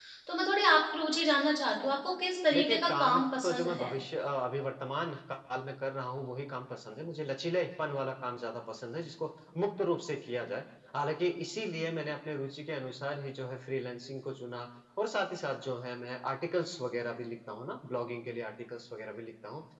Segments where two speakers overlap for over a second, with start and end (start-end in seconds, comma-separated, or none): 2.5-3.9